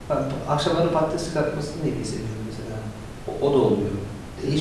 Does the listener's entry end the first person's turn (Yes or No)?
Yes